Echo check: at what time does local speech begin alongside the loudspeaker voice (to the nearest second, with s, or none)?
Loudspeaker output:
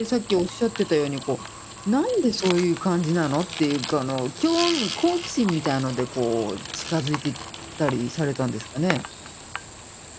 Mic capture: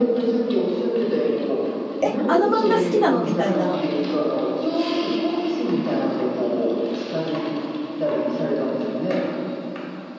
2 s